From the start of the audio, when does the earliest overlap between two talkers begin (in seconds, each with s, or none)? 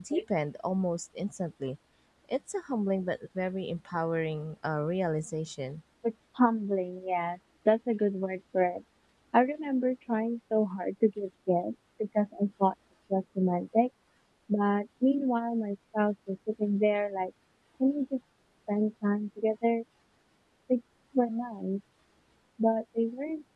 none